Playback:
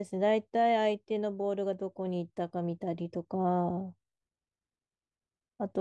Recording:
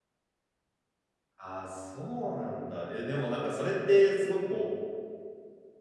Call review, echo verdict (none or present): none